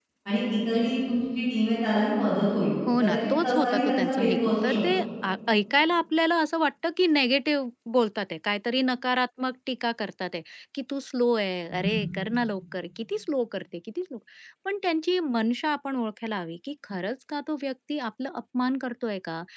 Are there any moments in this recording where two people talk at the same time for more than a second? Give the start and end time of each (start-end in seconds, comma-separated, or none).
3.0-4.8